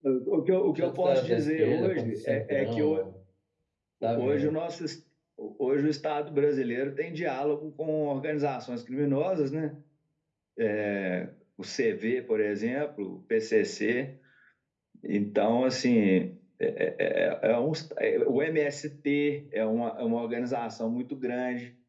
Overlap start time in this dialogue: 0.8 s

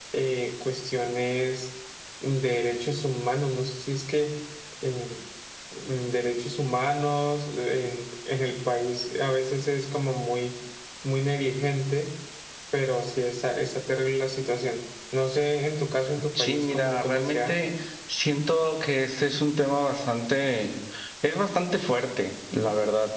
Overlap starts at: 16.4 s

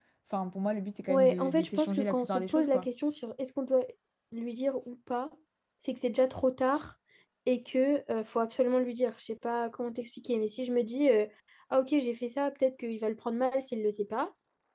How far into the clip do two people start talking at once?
1.1 s

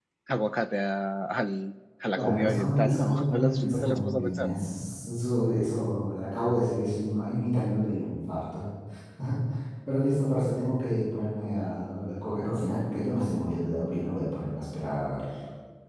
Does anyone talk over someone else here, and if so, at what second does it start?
2.1 s

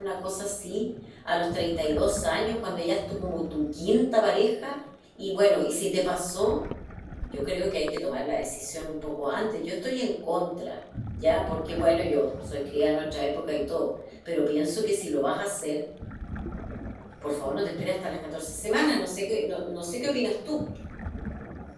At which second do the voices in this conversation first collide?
none

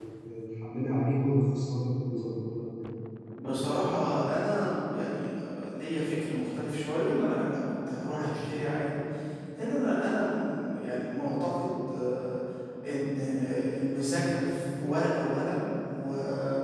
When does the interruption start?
none

